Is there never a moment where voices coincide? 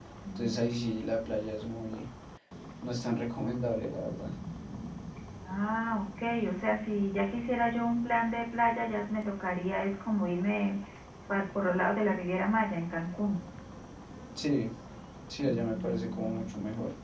No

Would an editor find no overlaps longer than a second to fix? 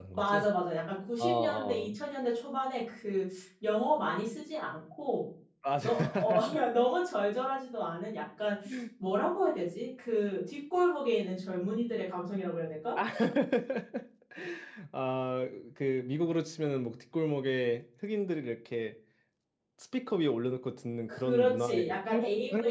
No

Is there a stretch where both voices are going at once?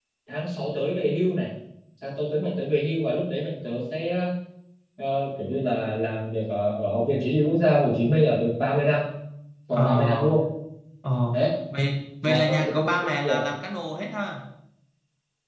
Yes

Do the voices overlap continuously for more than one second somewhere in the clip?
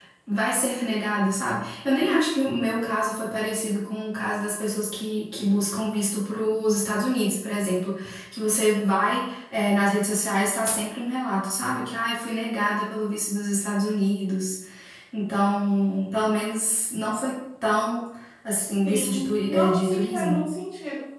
Yes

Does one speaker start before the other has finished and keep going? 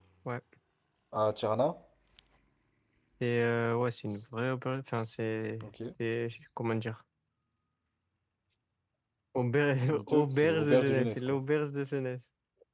Yes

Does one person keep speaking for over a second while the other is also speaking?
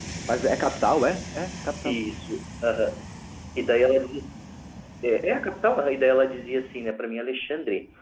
No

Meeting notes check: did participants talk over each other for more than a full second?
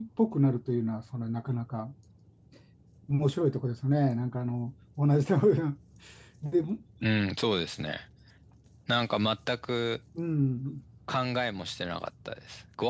No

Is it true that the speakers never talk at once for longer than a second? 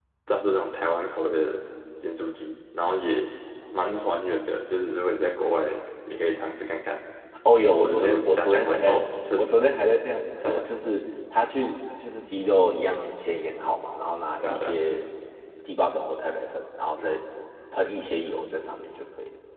No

